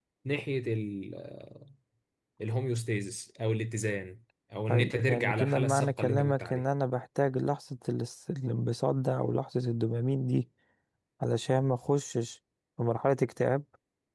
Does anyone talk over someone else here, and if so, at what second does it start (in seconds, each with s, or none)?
4.7 s